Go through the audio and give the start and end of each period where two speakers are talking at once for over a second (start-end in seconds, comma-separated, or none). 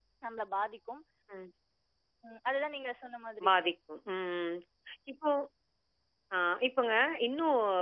none